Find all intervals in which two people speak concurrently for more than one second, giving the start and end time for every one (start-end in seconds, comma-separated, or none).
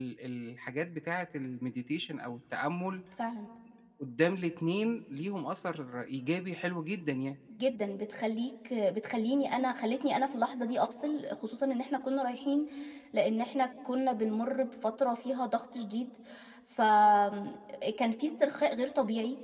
none